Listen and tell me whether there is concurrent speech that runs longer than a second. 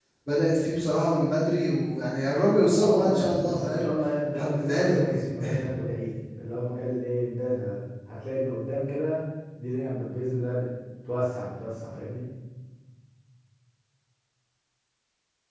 Yes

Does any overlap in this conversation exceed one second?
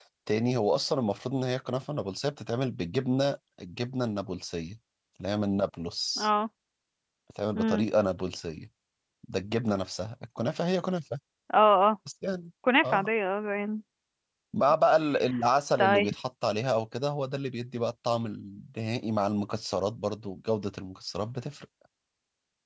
No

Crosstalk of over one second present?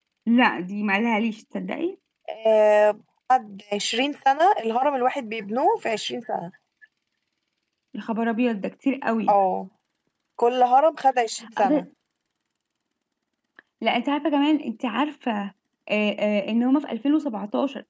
No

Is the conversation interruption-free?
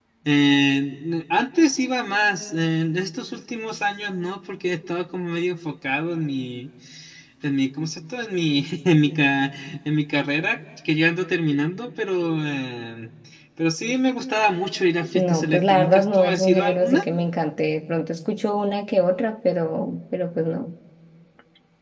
No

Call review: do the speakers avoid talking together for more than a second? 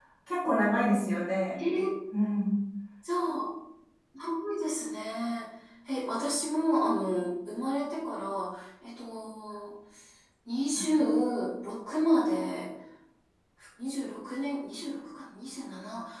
Yes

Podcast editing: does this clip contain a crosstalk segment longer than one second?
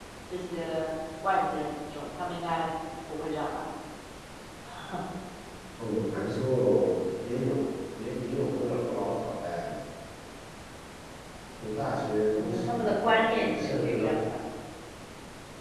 Yes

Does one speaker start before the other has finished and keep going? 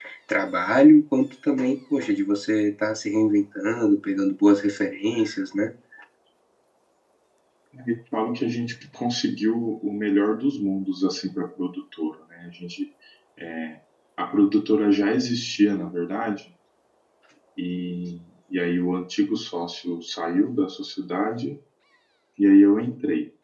No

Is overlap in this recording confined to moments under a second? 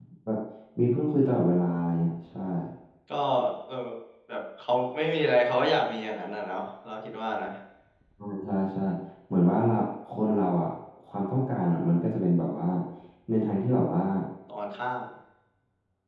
Yes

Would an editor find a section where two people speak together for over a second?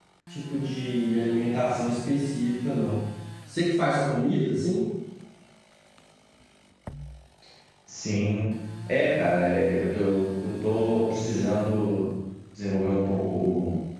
No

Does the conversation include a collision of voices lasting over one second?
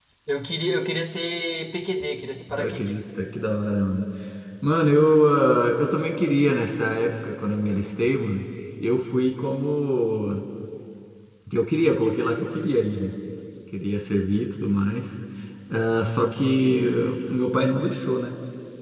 No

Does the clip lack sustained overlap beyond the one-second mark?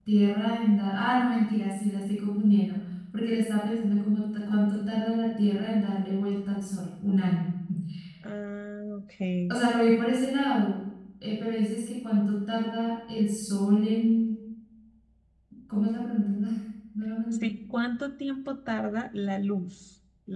Yes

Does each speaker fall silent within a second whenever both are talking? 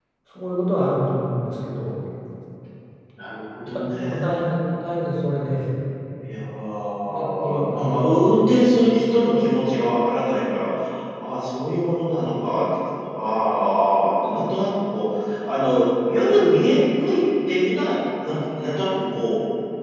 No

